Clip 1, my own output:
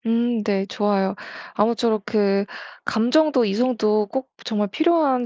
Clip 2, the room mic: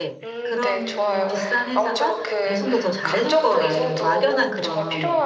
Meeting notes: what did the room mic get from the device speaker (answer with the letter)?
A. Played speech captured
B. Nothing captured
A